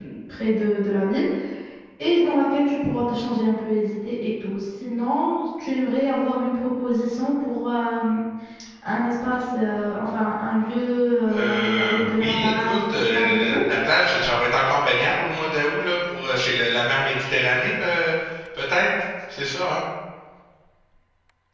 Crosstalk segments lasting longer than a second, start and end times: 11.3-13.6

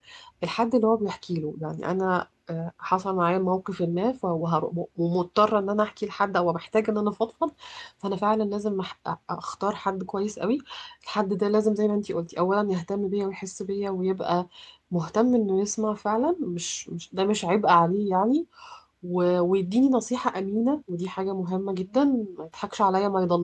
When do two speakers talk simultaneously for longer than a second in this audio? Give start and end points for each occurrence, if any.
none

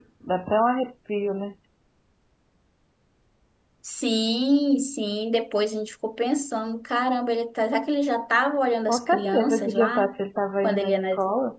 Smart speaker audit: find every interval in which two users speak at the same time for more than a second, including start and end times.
8.9-10.1

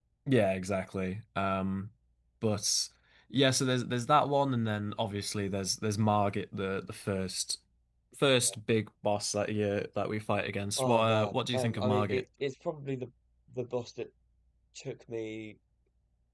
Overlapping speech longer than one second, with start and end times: 10.8-12.2

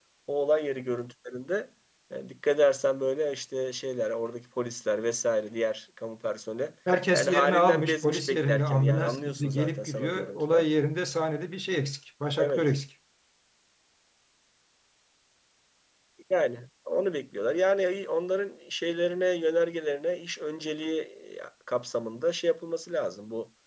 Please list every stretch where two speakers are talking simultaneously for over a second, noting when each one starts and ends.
7.1-10.6

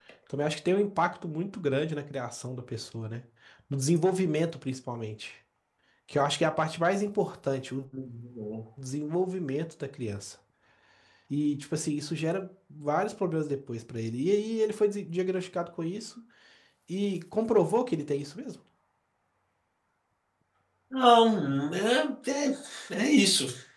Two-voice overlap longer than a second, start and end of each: none

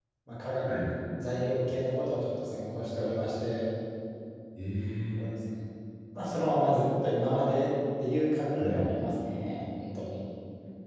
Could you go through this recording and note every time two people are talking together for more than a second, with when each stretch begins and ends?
none

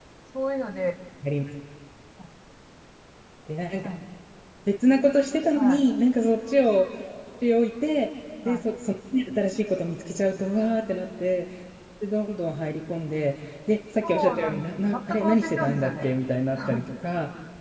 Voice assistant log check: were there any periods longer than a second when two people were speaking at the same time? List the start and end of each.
14.0-16.1

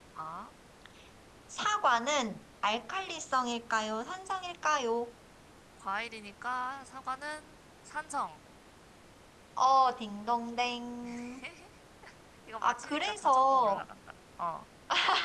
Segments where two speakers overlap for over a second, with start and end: 12.6-13.8

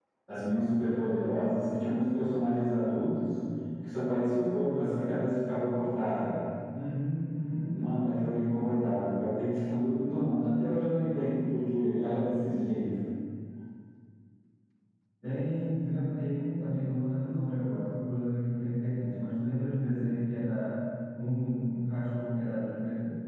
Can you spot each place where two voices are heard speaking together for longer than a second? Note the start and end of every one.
none

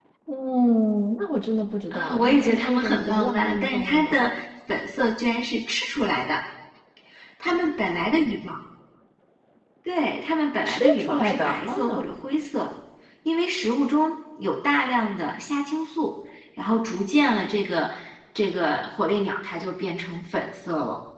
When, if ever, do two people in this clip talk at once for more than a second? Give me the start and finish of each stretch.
1.9-4.2, 10.7-12.1

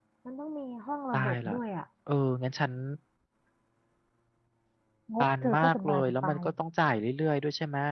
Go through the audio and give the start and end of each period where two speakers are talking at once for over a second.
5.2-6.4

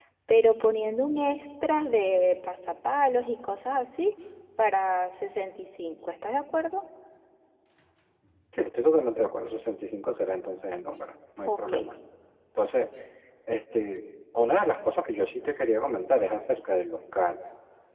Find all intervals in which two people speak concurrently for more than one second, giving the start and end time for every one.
none

